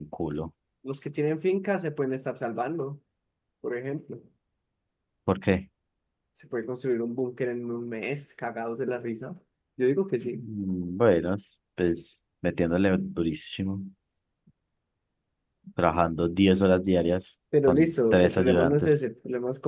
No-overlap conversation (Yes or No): No